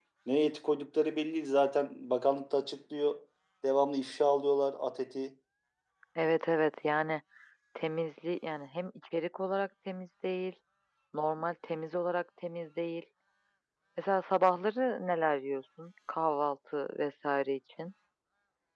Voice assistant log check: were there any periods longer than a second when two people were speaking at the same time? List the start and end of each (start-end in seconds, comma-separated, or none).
none